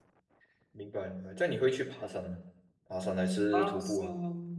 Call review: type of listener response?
taking over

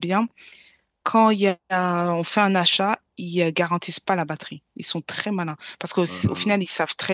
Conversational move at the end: listening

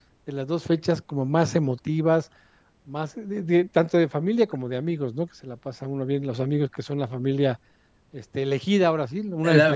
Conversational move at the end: taking over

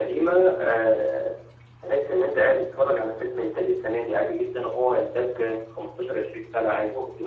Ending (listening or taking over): taking over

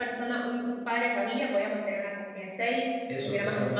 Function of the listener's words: taking over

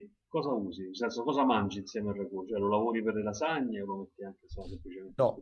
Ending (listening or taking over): taking over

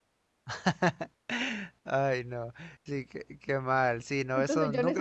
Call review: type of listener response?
taking over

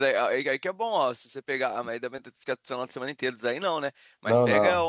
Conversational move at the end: listening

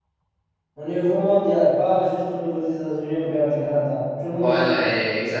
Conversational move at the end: taking over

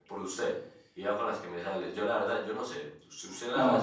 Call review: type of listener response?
taking over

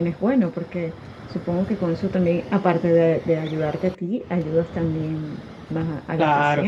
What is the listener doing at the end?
taking over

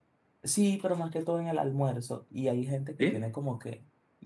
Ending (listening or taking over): listening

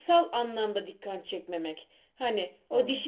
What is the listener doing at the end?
listening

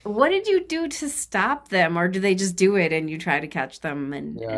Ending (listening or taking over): taking over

